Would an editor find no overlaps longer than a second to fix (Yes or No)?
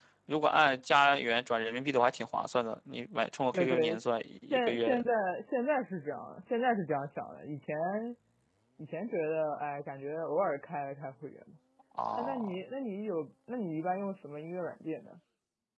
No